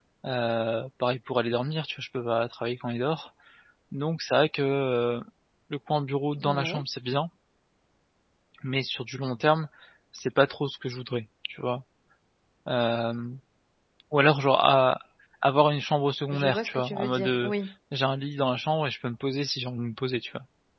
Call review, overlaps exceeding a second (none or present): present